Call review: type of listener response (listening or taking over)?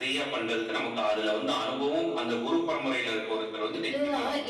taking over